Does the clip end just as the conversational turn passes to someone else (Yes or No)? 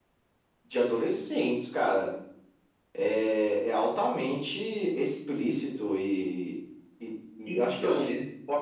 No